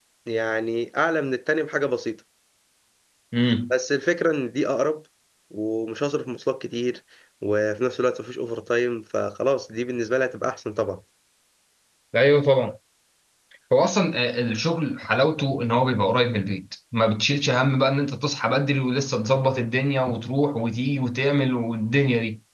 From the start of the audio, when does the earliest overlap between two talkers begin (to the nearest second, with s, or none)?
none